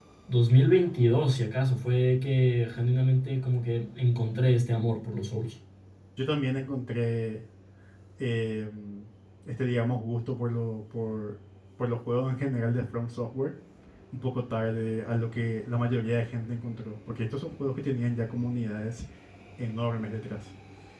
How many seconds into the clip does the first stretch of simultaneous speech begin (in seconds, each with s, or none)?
none